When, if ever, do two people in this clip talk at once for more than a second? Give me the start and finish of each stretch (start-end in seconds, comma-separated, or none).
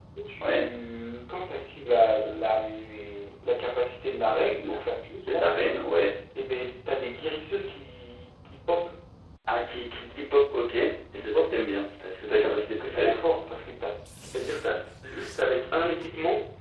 none